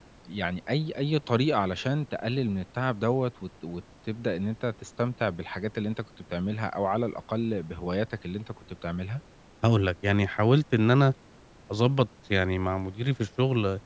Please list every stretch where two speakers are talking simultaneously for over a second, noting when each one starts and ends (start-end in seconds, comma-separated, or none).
none